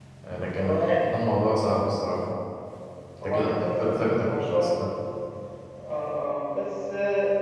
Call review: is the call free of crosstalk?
No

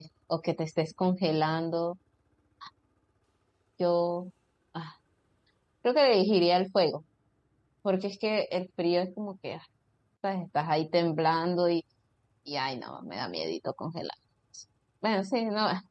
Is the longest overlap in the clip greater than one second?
No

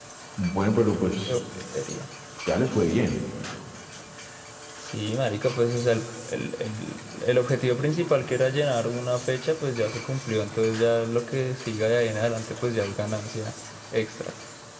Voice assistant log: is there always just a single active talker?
Yes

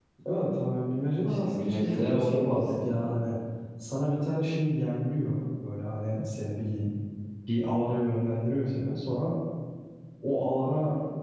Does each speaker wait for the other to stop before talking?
No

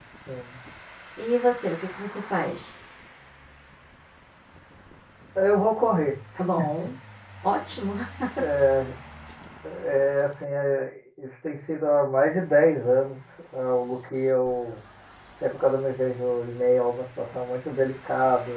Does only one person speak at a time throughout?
Yes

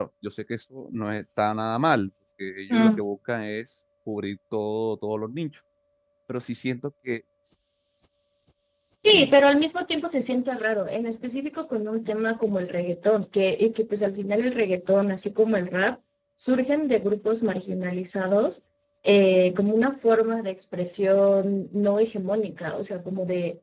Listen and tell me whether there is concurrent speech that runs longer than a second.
No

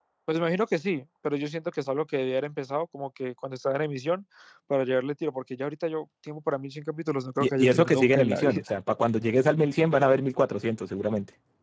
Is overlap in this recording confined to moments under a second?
No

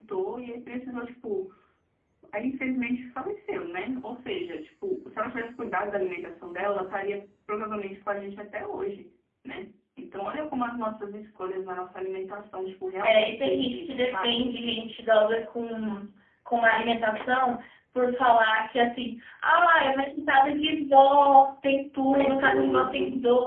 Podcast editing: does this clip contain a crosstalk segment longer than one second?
Yes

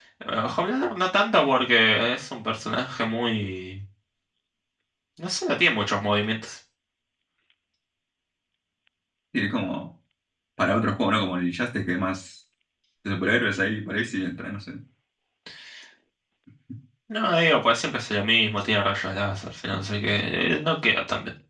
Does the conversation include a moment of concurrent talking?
No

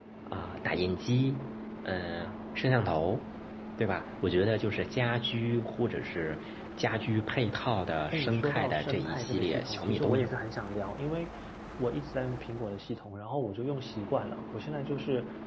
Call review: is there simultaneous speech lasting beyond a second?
Yes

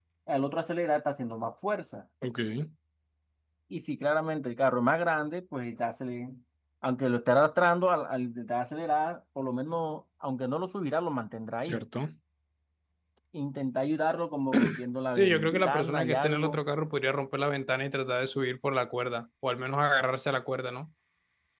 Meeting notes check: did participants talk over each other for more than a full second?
Yes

